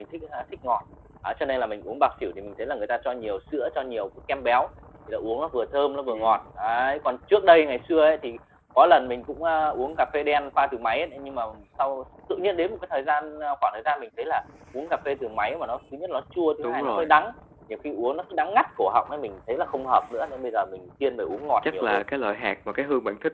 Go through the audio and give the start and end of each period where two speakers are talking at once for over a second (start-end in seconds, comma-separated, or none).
none